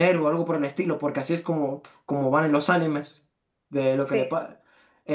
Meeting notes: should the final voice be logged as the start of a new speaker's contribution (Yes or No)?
No